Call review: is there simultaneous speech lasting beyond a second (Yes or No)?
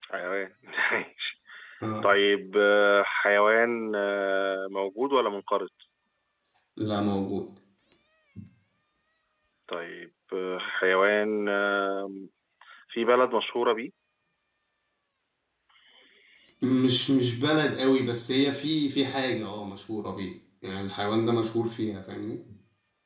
No